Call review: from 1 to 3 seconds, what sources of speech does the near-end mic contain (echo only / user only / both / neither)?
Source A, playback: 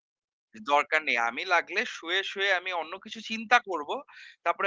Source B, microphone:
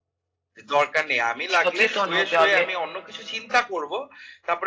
both